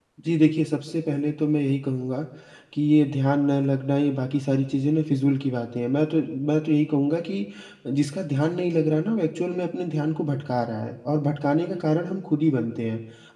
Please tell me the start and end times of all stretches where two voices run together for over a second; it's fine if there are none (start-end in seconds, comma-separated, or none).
none